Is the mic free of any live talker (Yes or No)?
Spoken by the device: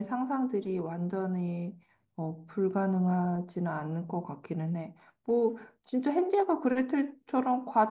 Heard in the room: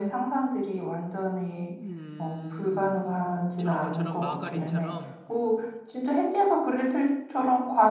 No